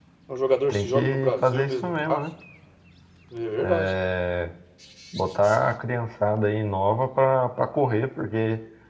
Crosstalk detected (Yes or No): Yes